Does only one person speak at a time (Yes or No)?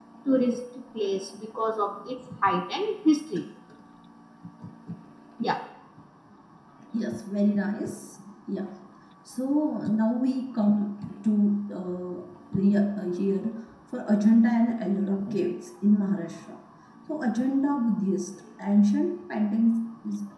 Yes